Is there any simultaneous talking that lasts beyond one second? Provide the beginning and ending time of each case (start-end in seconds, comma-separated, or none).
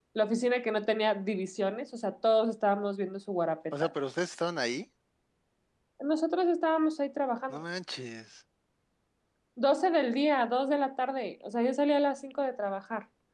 none